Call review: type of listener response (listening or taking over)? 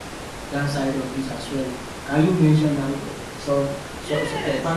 taking over